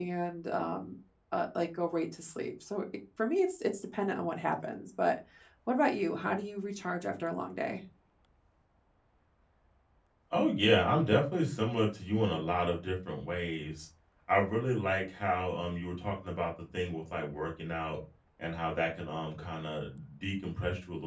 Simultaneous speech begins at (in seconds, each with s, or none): none